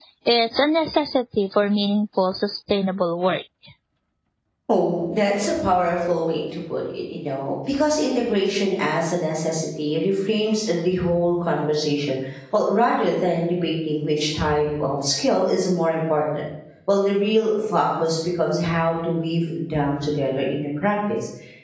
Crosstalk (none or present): none